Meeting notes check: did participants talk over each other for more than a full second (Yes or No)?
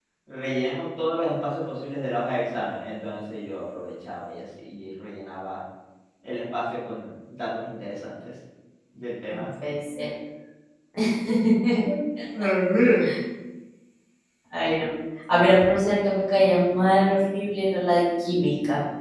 No